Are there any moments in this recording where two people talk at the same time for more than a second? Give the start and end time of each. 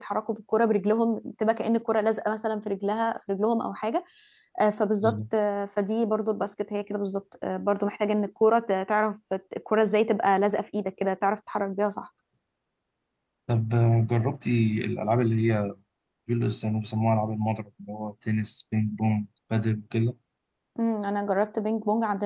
none

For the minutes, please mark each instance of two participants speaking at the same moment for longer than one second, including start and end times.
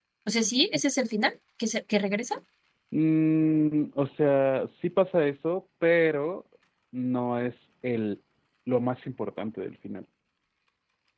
none

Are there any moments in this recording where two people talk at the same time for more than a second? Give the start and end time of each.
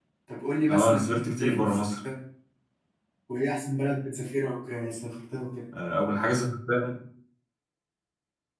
0.7-2.0

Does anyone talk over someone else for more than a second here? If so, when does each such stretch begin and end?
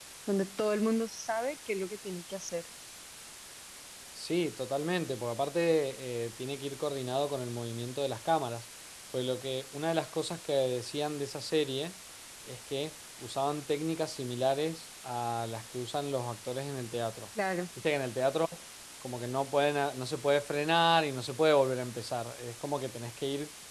none

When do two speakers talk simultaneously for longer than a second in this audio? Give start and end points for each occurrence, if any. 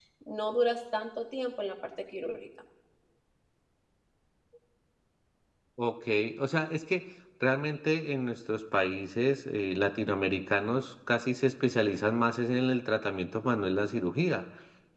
none

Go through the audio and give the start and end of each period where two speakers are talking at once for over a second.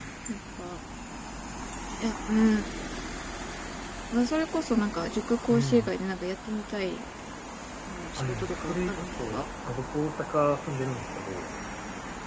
8.2-9.4

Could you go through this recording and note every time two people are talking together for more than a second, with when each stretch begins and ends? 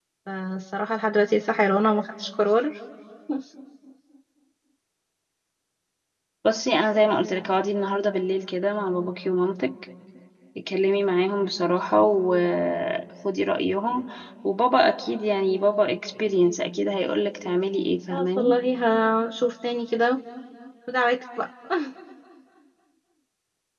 none

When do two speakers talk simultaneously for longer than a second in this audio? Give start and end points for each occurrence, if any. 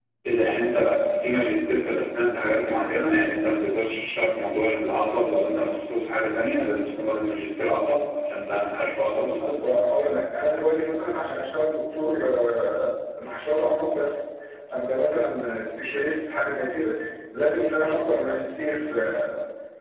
none

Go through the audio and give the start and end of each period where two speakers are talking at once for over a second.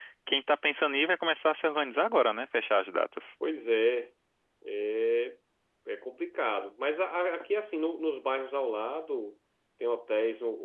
none

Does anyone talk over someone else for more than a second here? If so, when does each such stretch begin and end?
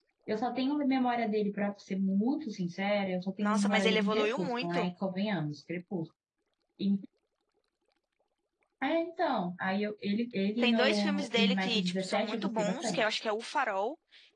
3.4-4.9, 10.6-13.1

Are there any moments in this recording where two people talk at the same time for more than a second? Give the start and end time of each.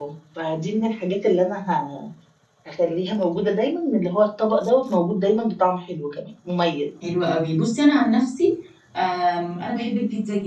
none

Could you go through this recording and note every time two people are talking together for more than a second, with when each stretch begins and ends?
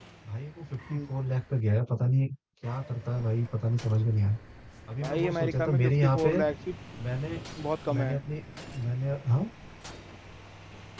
5.0-6.3

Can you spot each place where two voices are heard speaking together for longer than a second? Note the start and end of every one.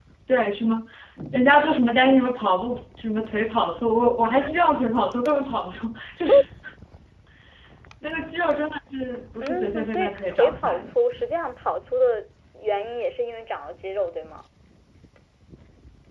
9.4-10.9

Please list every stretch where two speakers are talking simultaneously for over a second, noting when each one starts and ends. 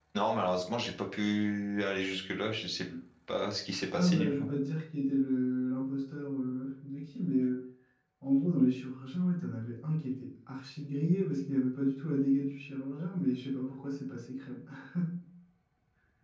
none

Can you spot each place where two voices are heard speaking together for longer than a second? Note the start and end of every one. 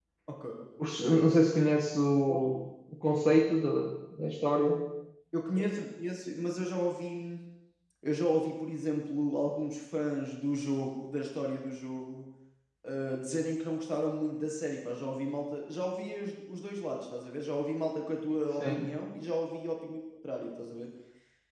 none

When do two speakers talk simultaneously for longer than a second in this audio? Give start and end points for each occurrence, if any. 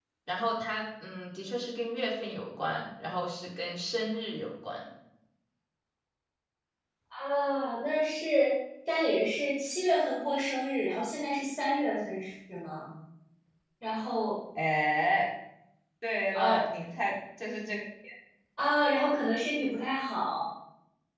none

